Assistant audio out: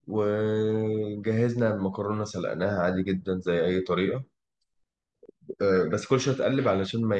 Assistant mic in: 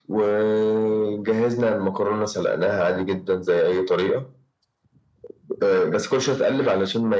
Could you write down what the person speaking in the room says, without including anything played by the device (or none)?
none